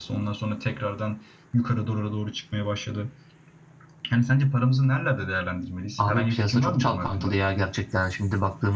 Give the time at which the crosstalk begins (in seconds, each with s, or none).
6.0 s